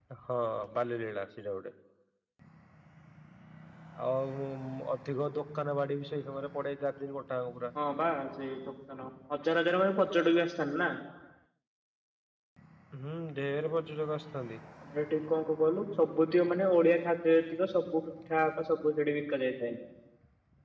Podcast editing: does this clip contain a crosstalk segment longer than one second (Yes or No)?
No